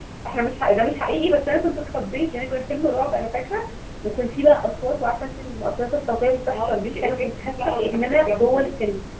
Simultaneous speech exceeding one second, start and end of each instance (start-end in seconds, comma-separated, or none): 6.5-8.7